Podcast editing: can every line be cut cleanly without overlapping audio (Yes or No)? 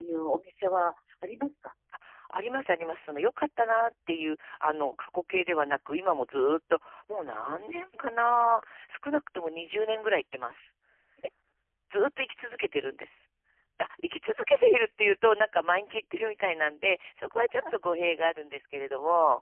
Yes